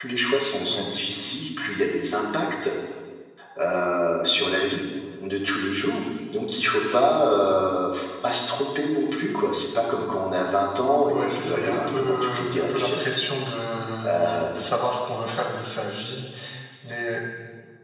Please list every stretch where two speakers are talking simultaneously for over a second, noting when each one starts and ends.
11.1-13.0

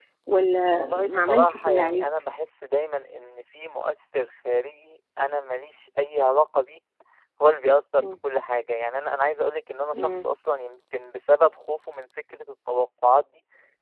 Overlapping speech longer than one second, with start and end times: 0.7-2.0

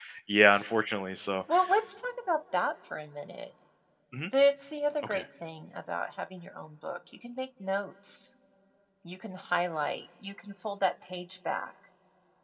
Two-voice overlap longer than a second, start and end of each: none

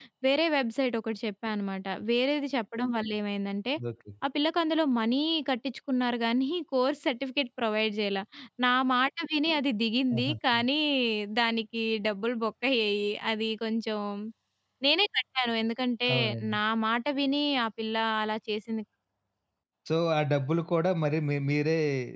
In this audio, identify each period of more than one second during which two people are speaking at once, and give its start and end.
none

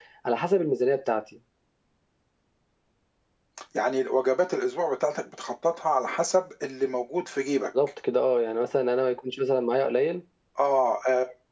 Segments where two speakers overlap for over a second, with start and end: none

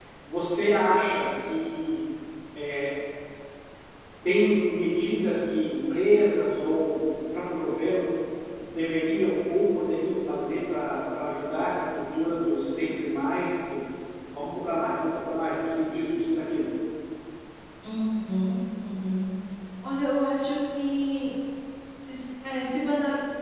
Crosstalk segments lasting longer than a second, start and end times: none

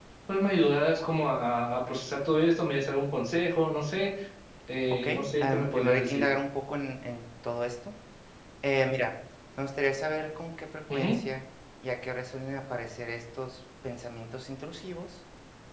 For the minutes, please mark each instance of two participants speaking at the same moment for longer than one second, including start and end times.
4.9-6.2

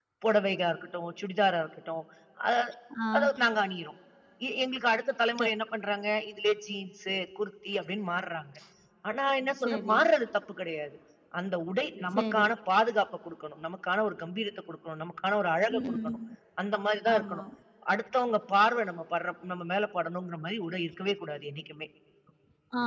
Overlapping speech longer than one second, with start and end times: none

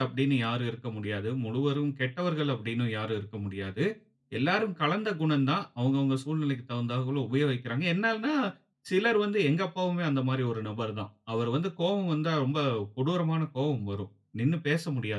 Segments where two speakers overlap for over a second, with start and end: none

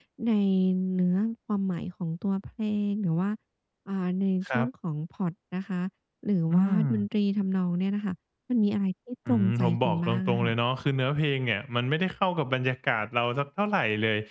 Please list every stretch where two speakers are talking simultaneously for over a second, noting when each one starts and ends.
9.3-10.5

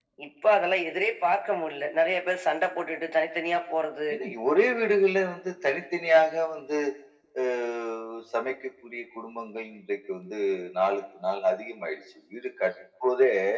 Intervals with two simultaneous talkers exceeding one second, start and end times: none

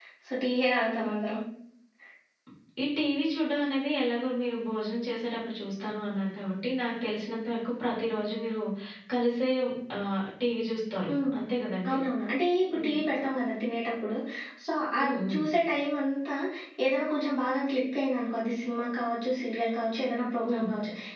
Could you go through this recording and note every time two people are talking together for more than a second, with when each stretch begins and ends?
none

